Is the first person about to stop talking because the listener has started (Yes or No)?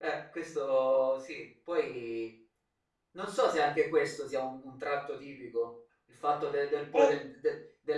No